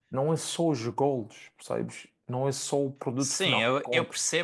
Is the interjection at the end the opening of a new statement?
Yes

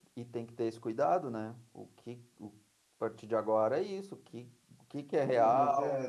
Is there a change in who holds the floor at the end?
Yes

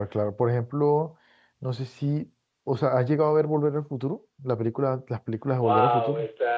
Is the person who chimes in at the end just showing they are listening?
No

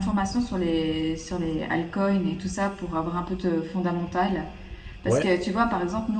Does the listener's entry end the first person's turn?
No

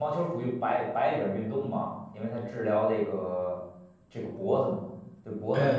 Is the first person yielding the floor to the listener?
Yes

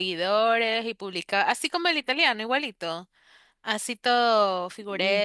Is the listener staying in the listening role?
No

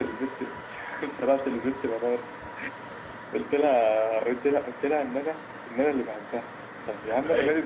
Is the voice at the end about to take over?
No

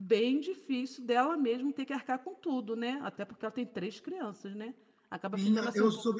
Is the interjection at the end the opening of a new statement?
Yes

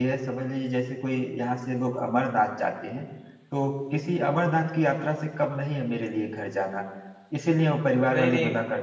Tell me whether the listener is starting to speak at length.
No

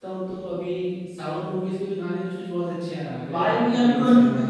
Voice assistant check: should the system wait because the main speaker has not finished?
No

